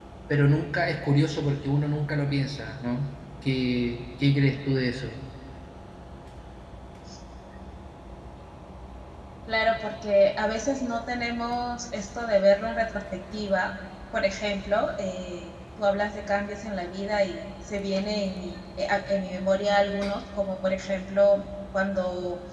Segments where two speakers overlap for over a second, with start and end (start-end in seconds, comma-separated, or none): none